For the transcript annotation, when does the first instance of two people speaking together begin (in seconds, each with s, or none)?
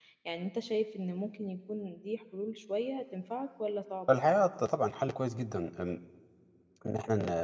none